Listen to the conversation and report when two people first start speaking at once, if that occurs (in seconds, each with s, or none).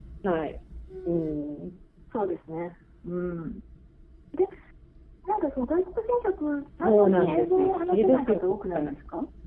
6.8 s